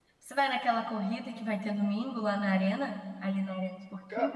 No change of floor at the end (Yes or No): No